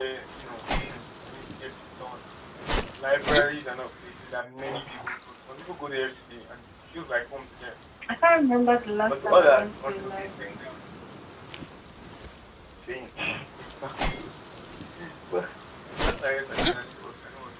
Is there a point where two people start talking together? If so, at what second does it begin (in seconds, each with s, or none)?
9.1 s